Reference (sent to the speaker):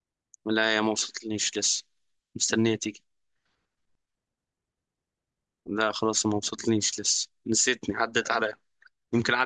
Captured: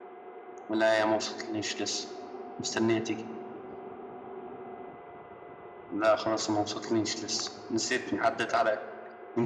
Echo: present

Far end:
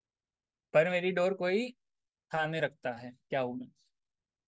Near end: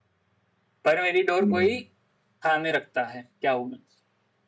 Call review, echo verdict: present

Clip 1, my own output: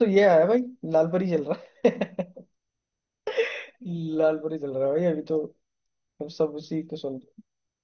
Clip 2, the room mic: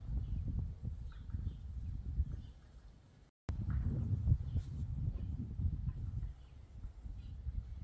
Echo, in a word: none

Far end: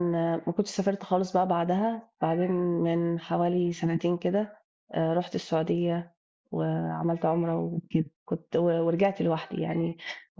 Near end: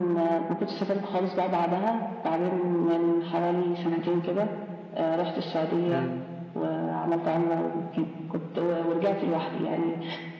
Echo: present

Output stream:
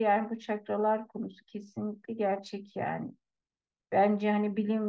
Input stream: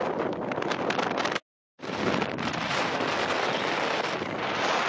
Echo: none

